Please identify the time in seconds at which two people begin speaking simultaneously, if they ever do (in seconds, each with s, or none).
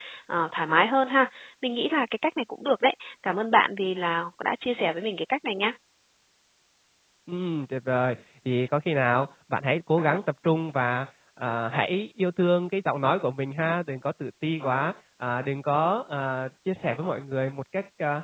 none